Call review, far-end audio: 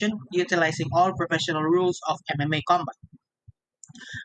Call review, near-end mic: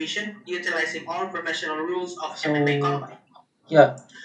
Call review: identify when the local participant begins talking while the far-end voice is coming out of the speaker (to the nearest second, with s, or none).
2 s